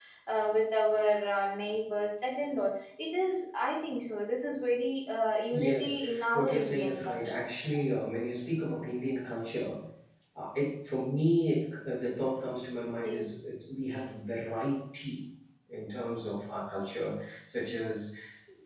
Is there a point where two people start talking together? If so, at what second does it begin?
5.5 s

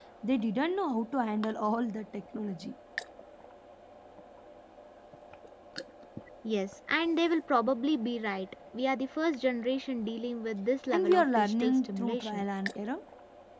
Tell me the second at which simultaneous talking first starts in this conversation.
10.9 s

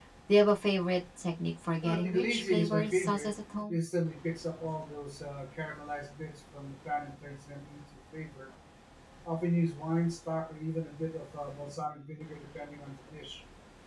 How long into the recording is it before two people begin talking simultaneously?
1.8 s

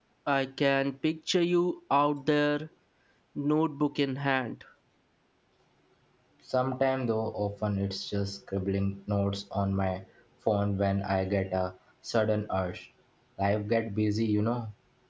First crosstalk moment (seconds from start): none

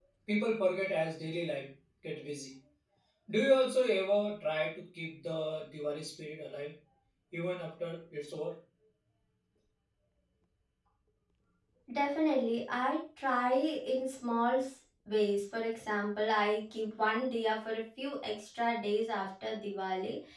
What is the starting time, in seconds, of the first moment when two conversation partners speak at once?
none

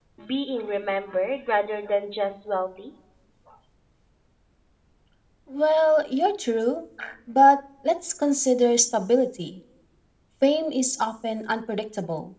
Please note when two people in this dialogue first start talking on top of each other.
none

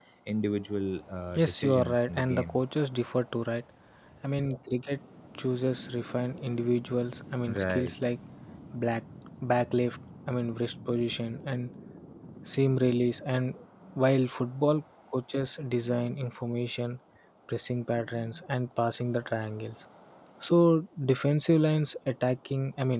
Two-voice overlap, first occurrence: 1.4 s

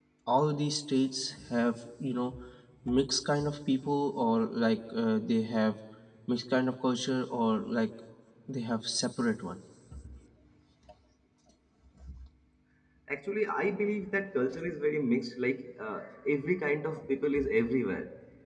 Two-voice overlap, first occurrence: none

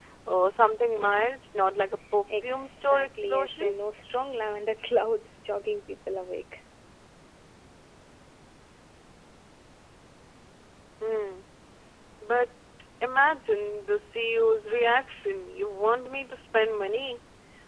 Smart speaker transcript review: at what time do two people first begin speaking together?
2.3 s

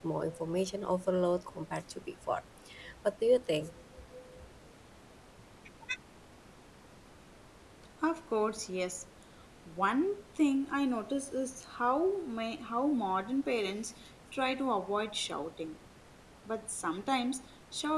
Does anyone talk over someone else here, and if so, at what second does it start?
none

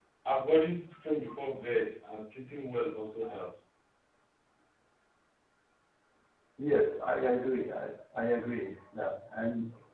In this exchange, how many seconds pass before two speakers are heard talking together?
none

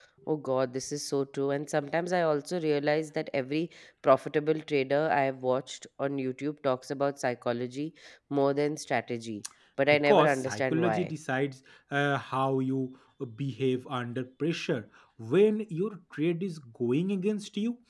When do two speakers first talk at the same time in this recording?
9.9 s

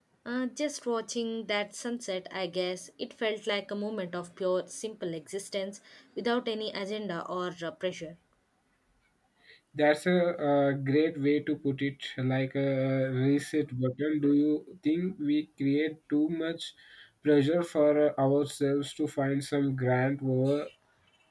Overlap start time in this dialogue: none

